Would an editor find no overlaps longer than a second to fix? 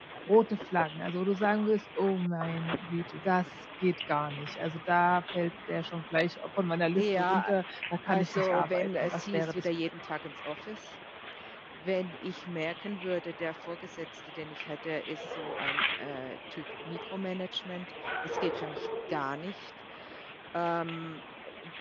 No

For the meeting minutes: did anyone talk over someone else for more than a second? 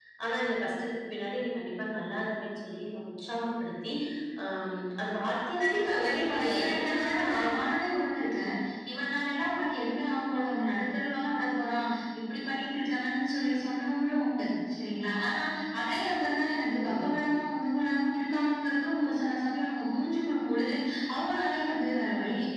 Yes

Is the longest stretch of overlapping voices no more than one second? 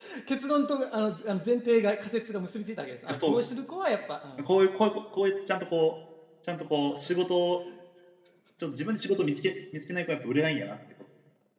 Yes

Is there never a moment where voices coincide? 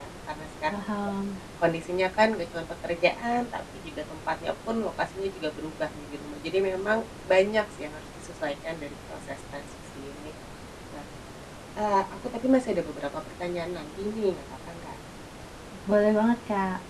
Yes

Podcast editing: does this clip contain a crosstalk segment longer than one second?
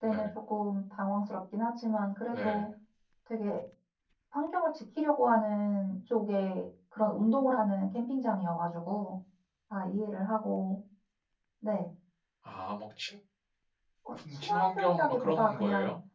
Yes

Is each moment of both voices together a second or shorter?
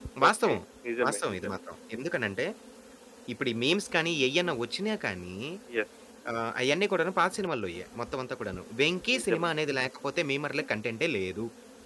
Yes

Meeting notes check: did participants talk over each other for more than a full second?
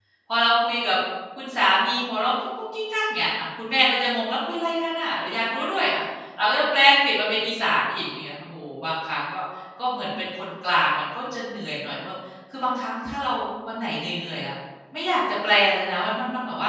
No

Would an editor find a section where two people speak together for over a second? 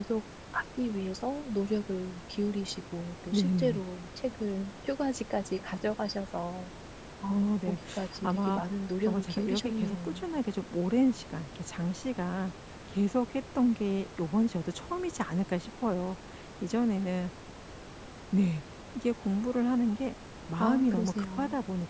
Yes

